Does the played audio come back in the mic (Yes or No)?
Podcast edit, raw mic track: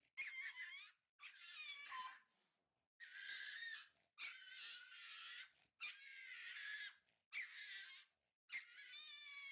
No